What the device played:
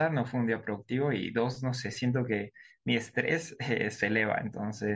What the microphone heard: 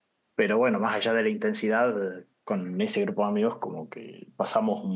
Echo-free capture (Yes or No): Yes